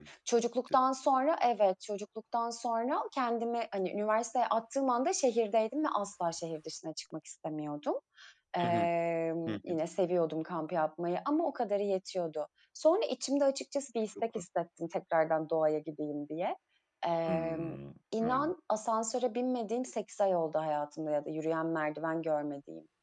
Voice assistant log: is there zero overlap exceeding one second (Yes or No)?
Yes